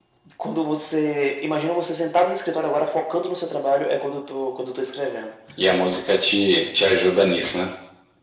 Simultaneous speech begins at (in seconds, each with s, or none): none